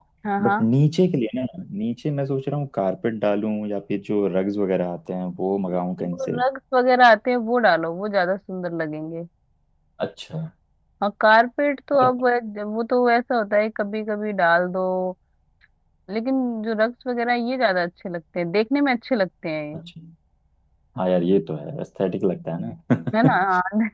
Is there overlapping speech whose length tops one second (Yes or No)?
No